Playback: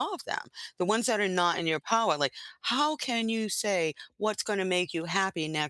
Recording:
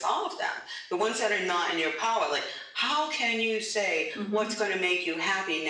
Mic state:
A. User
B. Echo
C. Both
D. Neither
C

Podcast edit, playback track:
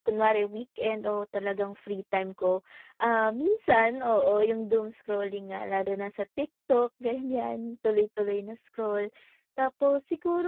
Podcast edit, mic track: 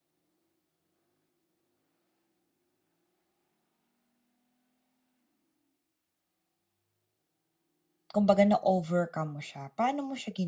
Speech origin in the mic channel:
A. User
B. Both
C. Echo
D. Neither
A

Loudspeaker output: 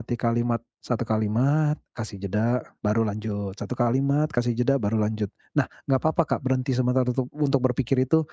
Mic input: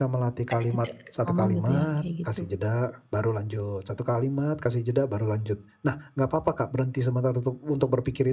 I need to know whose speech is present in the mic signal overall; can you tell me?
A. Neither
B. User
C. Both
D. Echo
C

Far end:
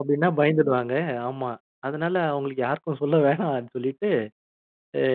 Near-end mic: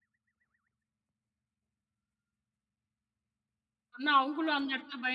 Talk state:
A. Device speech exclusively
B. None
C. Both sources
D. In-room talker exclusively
D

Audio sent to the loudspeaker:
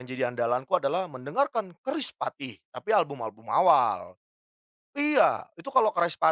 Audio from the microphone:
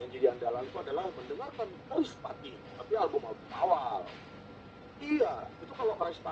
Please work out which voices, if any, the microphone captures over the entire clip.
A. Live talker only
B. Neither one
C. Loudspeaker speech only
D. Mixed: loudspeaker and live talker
C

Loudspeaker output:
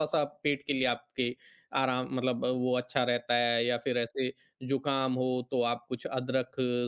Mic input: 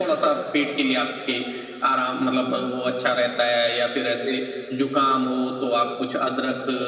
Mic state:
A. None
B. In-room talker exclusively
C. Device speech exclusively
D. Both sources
C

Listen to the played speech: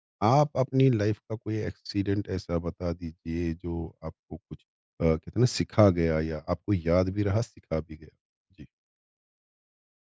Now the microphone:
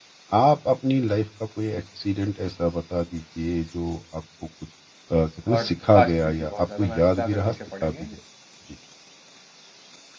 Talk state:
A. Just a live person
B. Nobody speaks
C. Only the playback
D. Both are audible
D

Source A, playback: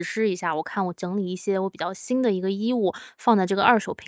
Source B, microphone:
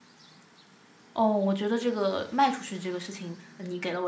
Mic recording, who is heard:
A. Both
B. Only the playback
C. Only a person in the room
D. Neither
C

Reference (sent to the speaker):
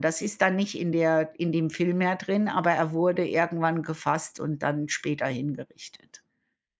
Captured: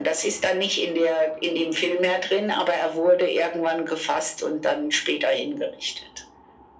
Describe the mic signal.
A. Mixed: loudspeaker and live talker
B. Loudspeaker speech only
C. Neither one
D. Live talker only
B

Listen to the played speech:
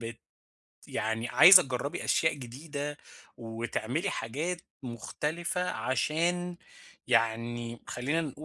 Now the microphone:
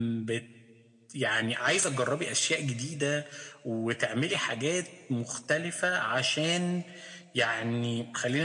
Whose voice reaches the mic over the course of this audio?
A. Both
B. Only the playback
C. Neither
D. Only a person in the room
B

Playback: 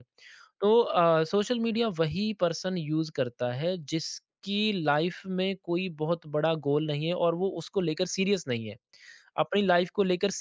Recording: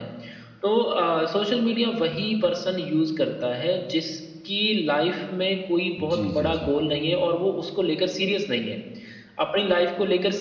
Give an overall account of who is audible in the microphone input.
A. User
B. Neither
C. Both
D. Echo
C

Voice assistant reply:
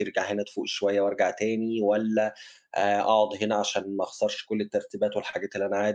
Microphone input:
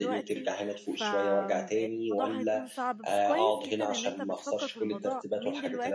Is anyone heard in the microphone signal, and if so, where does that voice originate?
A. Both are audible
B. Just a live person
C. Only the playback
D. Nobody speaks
A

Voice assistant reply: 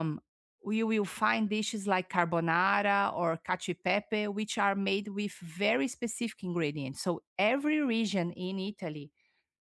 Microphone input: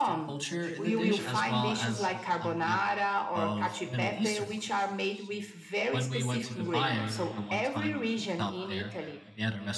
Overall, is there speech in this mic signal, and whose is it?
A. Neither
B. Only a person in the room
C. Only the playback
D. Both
D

